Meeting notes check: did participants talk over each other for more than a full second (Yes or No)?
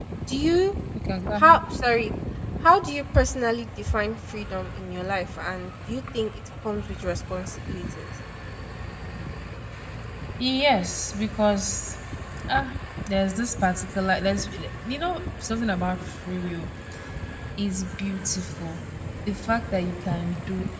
No